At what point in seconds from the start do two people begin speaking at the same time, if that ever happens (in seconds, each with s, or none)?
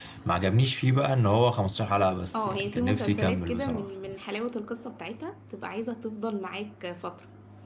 2.3 s